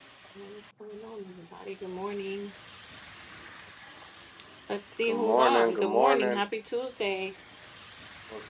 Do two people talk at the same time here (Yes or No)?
Yes